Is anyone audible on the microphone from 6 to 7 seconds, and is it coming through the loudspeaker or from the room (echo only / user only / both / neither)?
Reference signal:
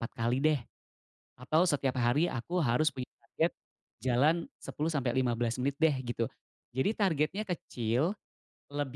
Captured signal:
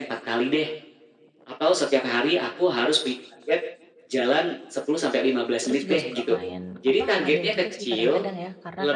both